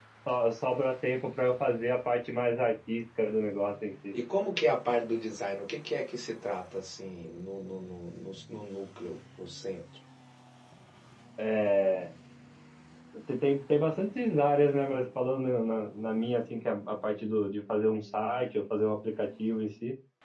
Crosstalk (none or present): none